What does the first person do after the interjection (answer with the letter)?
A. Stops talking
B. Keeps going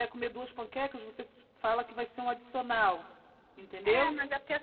A